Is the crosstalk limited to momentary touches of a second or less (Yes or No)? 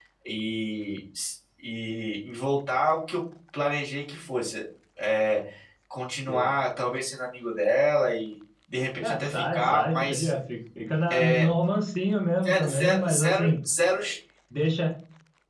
No